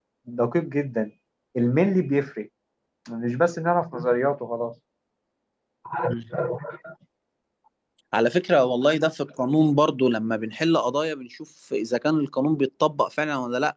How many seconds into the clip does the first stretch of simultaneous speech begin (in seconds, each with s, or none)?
none